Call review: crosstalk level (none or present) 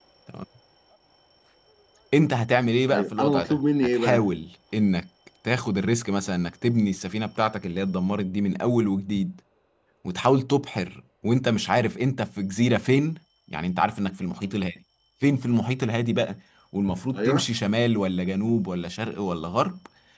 present